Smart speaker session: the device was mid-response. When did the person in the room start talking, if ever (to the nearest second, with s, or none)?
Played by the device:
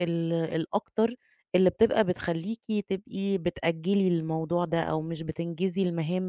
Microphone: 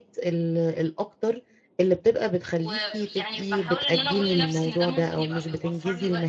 3 s